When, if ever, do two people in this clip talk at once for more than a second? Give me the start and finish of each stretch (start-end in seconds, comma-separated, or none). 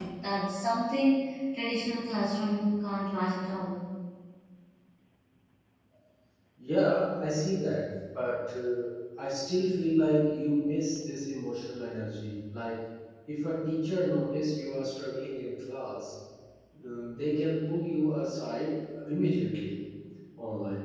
none